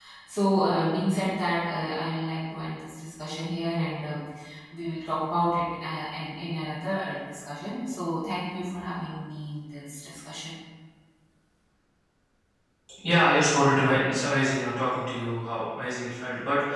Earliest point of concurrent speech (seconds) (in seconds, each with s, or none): none